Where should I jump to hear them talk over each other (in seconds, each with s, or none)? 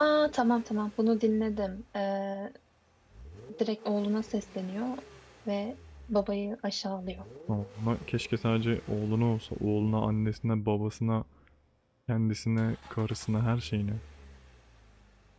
none